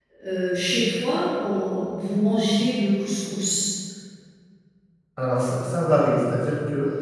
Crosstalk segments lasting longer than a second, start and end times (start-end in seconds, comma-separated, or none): none